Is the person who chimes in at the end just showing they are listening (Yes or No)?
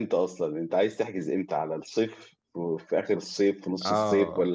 No